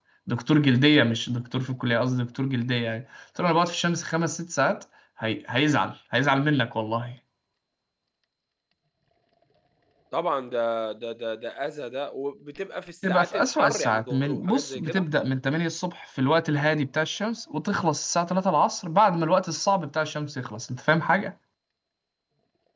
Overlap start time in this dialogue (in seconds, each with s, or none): 13.0 s